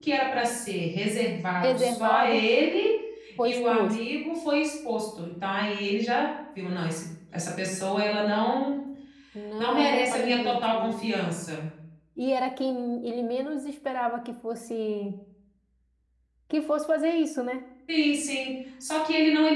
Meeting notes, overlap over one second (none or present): present